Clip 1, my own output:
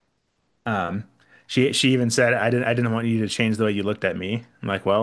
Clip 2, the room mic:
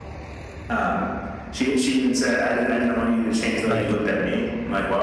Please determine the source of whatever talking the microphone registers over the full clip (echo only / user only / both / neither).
both